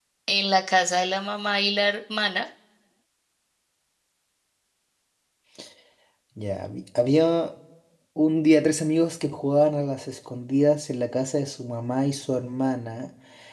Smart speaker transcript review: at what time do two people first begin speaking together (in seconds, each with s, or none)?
none